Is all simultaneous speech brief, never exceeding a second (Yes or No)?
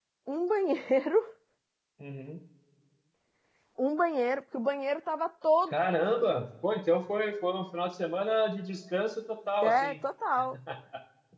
Yes